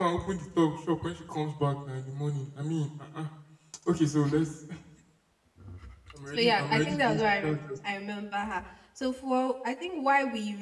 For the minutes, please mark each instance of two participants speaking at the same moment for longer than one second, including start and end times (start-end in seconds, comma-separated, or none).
6.3-7.6